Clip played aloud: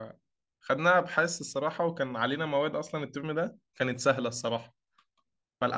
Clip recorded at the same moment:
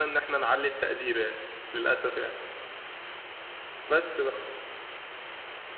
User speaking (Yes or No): Yes